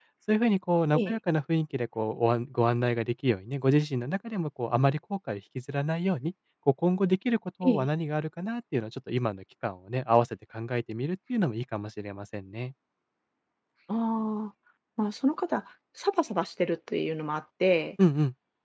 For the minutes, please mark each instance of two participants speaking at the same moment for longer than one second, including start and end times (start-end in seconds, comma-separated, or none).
none